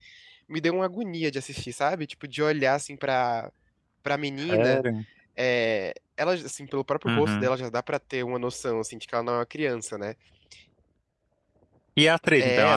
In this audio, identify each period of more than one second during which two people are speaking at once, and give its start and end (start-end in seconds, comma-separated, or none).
none